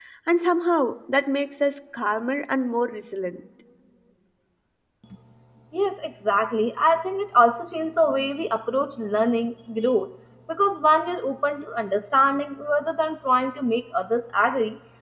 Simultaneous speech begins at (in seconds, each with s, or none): none